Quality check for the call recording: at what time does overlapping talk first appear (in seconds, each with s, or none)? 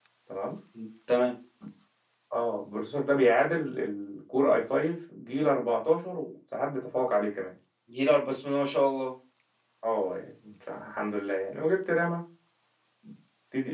none